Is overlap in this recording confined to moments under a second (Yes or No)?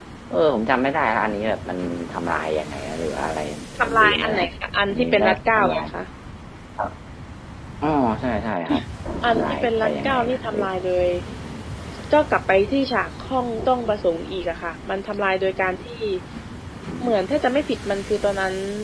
No